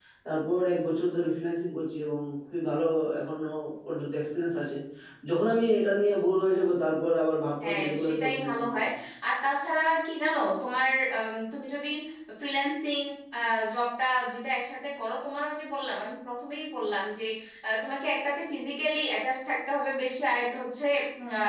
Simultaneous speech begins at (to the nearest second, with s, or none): 8 s